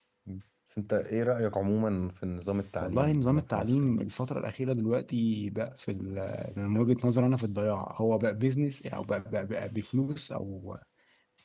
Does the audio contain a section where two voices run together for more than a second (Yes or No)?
Yes